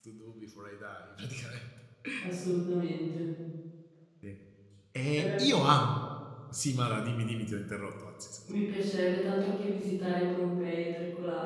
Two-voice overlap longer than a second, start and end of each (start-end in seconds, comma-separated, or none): none